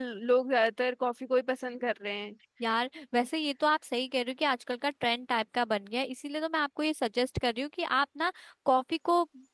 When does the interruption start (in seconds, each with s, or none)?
none